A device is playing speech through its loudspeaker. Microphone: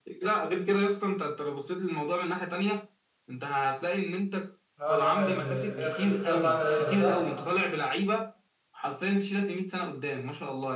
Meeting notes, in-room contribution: present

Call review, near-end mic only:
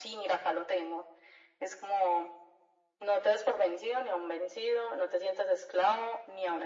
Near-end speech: none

